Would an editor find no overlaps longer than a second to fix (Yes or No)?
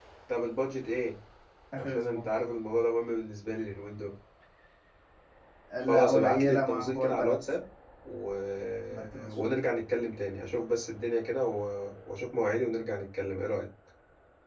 No